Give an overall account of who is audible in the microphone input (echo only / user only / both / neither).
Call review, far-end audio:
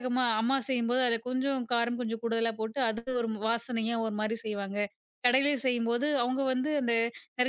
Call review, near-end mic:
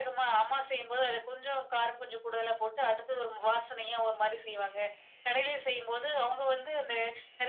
echo only